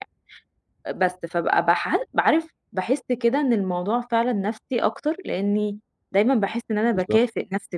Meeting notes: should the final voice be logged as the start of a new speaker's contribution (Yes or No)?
No